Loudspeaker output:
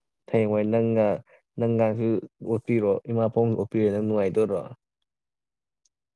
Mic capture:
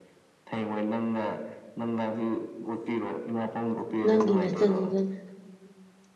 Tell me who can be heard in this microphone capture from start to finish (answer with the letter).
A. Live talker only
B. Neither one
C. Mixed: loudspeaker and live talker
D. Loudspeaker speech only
C